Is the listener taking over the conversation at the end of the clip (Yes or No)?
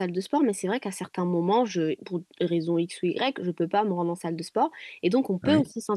No